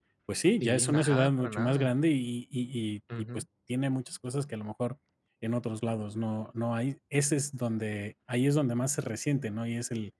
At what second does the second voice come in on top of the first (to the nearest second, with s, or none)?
1 s